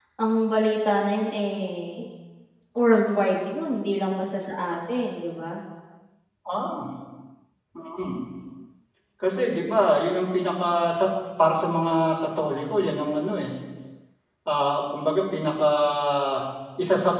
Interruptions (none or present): none